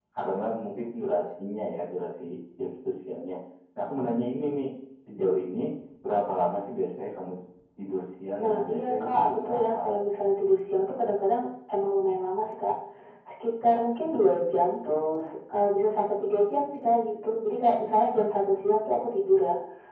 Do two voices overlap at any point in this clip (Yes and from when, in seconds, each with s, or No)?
Yes, from 8.4 s